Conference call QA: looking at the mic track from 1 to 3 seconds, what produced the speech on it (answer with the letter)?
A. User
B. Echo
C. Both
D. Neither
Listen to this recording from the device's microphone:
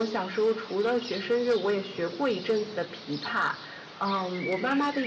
B